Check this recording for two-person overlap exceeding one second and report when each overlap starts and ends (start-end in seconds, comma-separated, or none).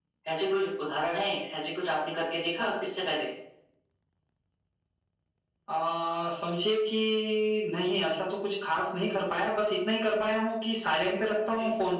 none